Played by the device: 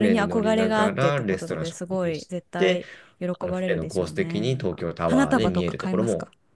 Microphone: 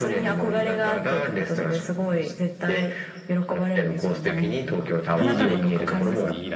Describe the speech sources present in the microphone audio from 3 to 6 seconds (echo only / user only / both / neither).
both